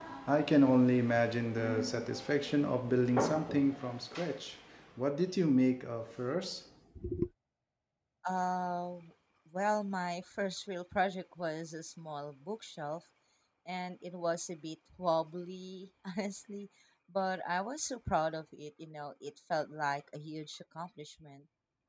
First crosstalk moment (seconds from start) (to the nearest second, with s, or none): none